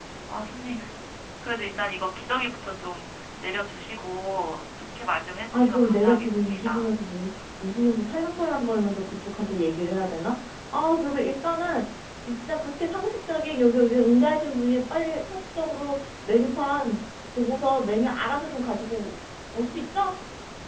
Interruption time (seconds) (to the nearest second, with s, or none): 6 s